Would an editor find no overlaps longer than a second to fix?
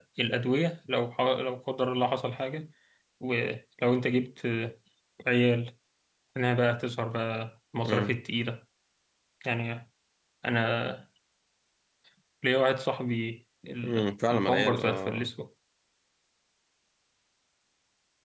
No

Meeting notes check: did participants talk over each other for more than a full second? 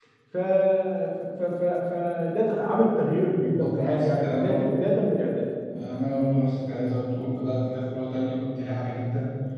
Yes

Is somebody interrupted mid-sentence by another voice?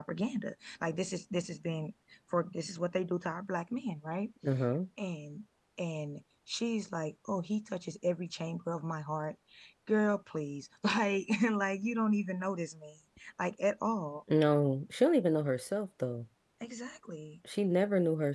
No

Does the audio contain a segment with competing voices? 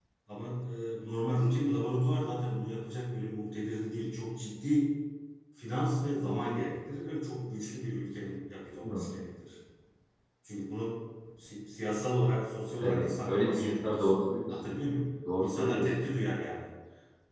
Yes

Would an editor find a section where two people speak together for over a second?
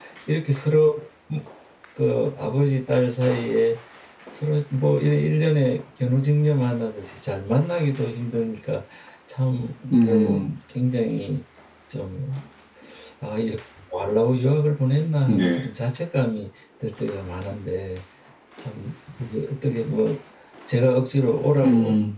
No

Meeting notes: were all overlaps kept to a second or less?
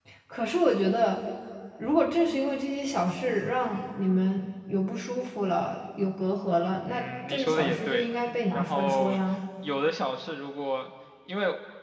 No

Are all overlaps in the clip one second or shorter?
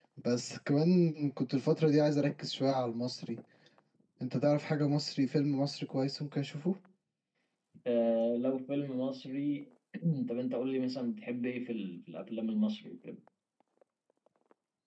Yes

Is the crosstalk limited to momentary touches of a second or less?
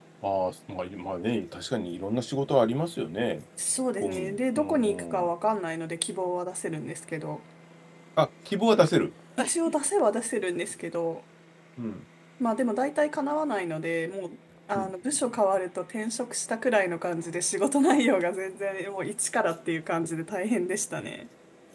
No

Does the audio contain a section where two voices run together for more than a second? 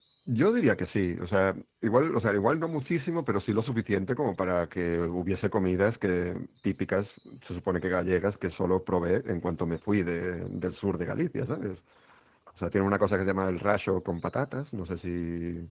No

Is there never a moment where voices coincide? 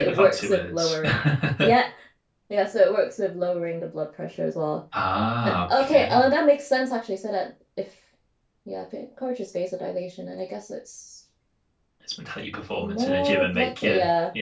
No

